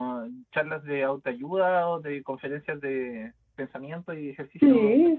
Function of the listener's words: taking over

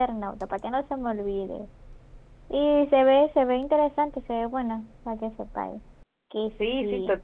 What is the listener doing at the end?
taking over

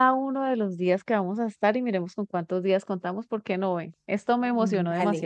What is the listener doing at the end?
taking over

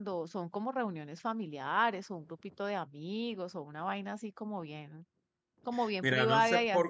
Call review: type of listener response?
taking over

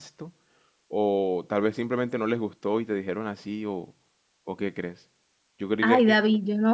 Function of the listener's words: taking over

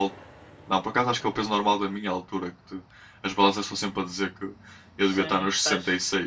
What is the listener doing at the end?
taking over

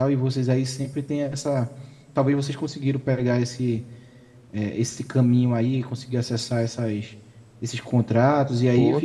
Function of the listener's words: taking over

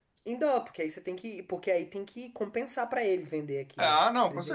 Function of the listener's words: taking over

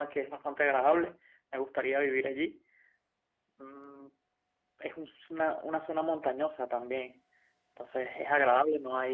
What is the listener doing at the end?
listening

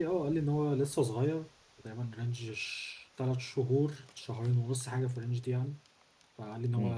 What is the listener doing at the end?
listening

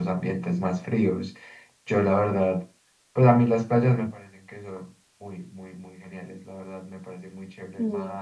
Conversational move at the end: listening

